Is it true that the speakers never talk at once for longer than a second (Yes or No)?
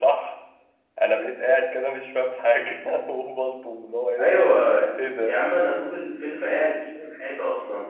Yes